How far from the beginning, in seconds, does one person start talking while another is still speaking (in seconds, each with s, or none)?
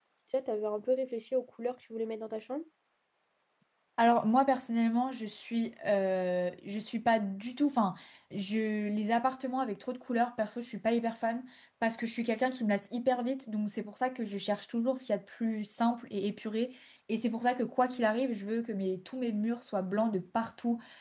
none